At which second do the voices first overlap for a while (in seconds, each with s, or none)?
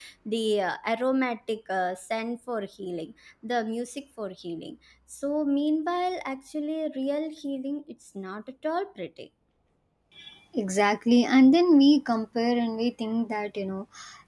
none